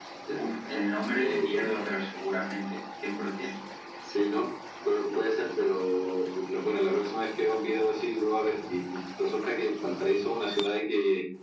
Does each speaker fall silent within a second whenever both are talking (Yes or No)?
Yes